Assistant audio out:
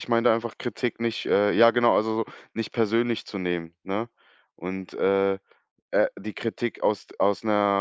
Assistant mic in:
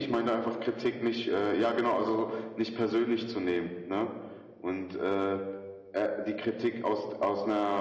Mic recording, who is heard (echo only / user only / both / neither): echo only